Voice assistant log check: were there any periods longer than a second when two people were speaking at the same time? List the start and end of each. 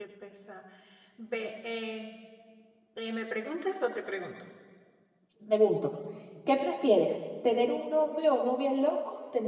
none

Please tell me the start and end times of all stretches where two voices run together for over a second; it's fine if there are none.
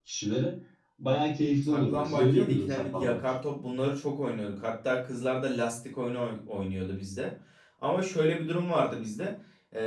1.7-3.2

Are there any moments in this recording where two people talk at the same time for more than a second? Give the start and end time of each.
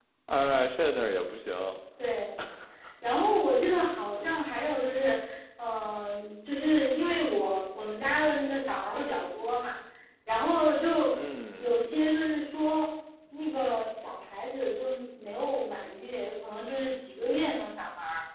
none

